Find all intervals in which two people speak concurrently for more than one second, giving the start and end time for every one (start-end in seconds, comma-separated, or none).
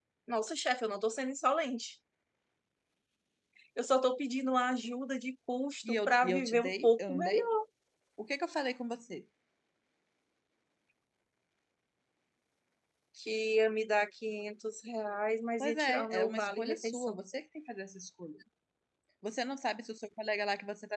6.1-7.5, 15.6-17.2